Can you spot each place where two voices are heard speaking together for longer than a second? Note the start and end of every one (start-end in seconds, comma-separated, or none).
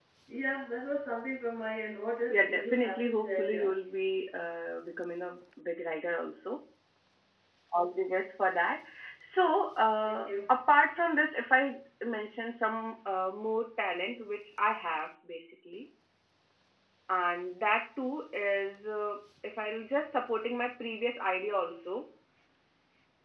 2.3-3.7